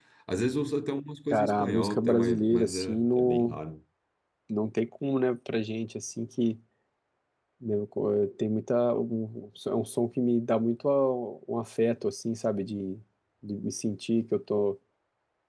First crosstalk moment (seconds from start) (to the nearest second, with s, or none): 1 s